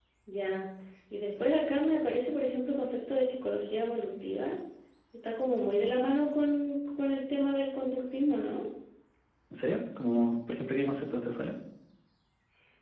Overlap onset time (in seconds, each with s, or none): none